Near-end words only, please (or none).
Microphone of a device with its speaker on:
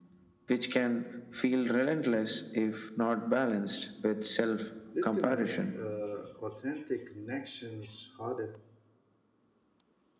This can make uh, authentic connections harder